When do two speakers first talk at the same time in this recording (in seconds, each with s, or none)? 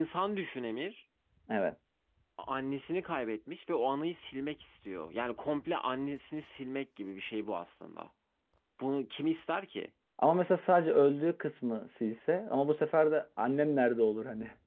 none